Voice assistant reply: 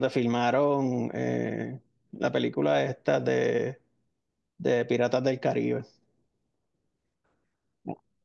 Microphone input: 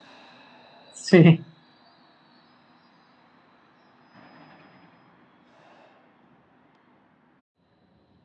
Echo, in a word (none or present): none